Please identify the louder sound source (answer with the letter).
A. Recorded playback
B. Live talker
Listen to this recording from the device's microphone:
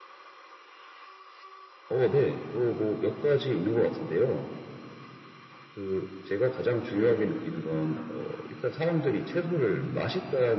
A